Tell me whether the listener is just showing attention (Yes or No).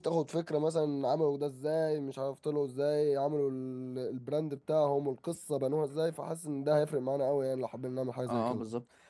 No